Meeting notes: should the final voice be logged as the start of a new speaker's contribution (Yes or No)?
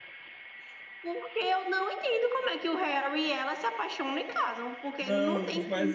Yes